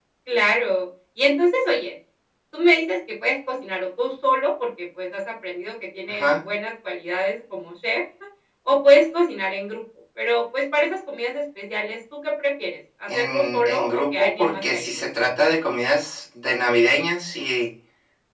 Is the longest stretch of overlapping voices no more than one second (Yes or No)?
No